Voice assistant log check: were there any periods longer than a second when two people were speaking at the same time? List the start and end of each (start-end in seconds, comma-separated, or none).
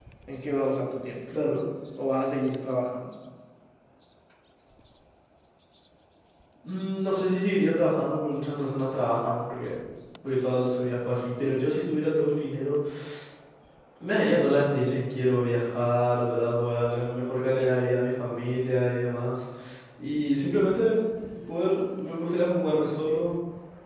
none